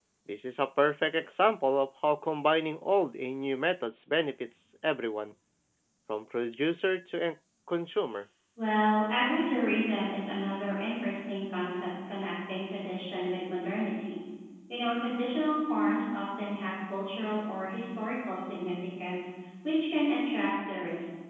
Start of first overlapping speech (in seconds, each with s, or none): none